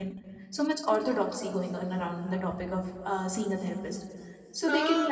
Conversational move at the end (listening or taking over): taking over